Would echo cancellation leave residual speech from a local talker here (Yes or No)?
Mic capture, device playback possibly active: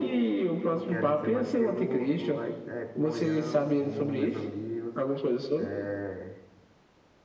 Yes